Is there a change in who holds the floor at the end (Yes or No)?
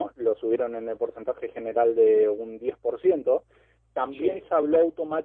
No